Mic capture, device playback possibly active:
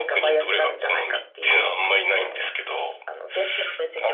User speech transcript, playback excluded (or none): none